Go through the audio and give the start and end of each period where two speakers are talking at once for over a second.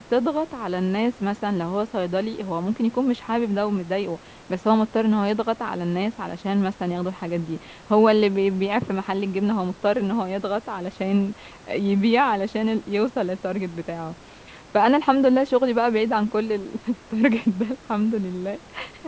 none

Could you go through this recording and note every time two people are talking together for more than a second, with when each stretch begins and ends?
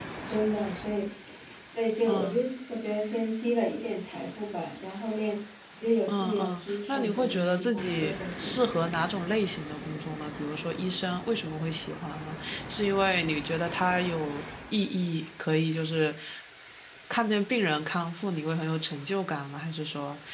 6.1-8.7

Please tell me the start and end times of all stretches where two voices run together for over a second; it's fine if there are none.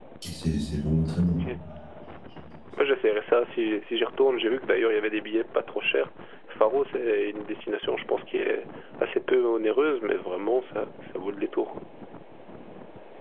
none

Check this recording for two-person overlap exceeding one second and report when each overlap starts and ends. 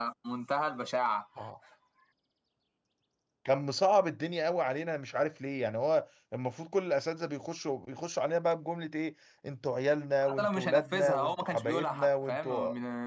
10.2-12.5

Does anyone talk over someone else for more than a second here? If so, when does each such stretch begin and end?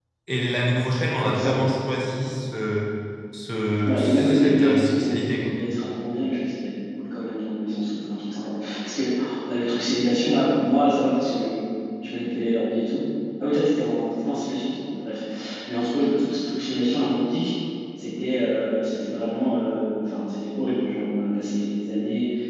3.9-5.5

